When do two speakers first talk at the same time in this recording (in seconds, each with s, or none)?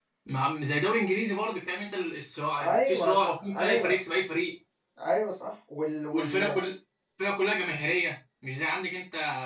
2.5 s